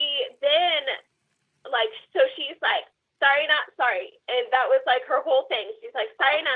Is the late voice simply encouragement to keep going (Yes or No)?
Yes